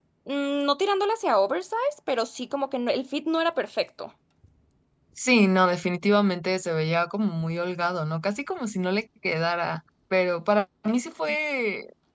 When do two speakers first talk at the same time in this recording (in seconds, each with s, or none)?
none